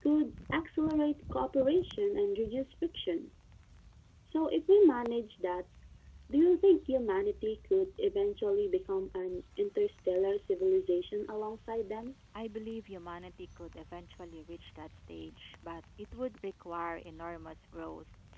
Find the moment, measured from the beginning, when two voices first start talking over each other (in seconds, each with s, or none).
none